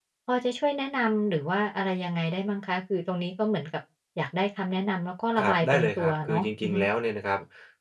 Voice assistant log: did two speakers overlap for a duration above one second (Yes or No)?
Yes